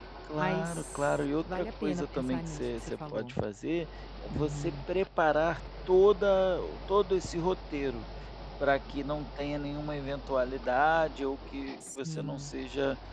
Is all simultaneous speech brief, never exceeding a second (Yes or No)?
No